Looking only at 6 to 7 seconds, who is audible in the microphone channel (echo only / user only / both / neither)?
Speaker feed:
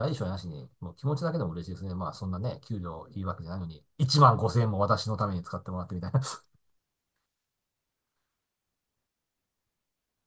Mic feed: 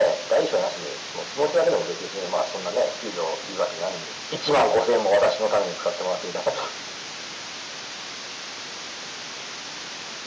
echo only